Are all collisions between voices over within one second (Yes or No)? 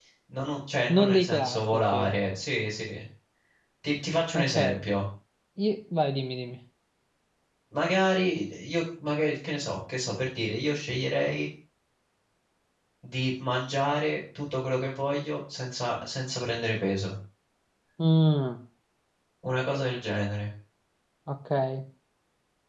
No